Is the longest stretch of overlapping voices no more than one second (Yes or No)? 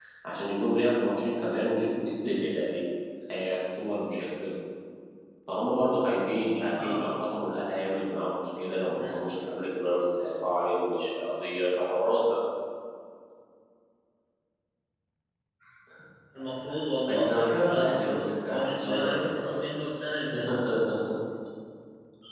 No